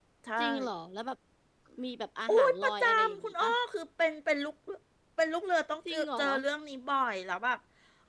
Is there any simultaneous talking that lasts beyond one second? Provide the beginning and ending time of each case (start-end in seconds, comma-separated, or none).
2.3-3.5